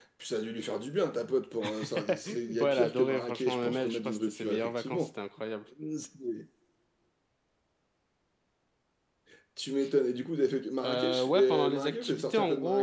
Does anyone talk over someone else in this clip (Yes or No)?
Yes